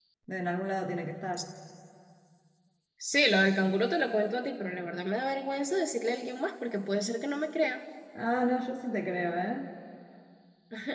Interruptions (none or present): none